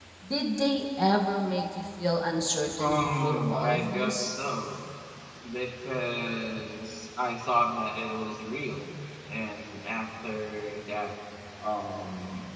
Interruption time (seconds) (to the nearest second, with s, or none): 3 s